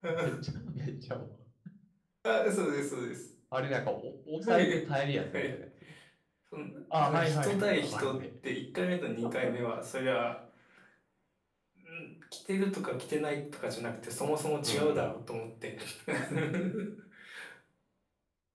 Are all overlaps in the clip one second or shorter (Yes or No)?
No